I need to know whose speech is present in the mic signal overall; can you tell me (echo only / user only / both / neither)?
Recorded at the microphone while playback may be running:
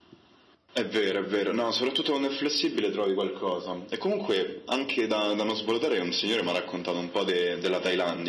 echo only